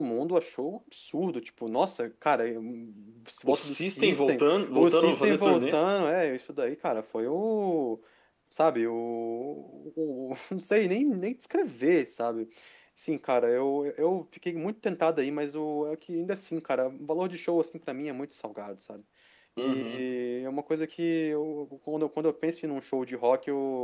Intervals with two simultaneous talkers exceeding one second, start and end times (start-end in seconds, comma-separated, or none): 3.5-5.8